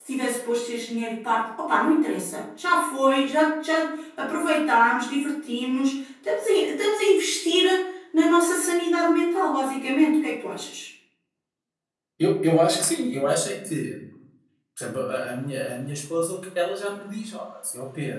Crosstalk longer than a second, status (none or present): none